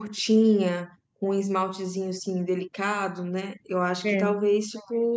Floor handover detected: No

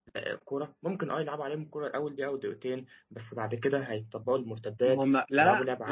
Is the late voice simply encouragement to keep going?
No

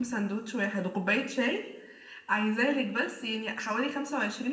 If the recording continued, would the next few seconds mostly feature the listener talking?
No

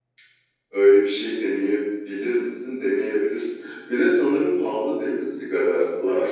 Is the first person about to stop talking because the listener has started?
Yes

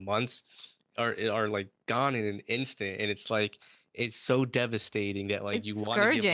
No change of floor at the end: Yes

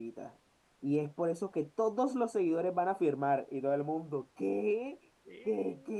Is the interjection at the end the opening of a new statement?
No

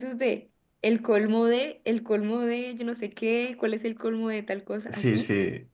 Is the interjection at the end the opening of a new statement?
Yes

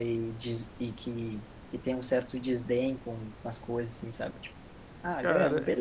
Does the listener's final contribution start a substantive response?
Yes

